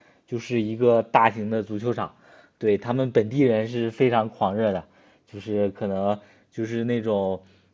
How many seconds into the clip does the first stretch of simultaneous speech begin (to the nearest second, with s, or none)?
none